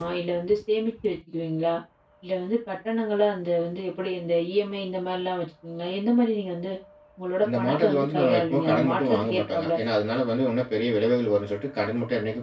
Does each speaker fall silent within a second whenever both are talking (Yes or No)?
No